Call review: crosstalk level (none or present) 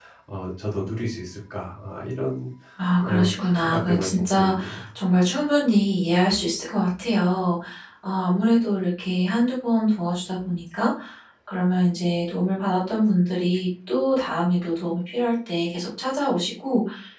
present